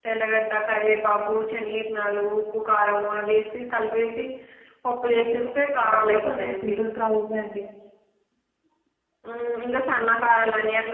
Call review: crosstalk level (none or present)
present